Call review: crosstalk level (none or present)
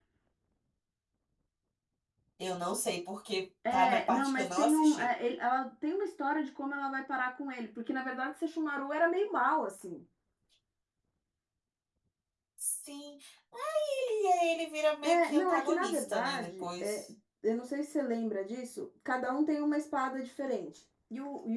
present